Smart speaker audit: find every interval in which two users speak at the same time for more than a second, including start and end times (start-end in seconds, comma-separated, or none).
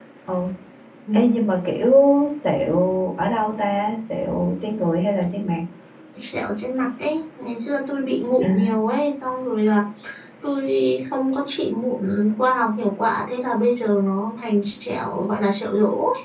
none